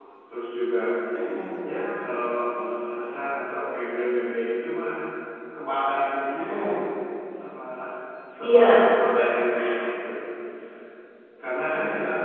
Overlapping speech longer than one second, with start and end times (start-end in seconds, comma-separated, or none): none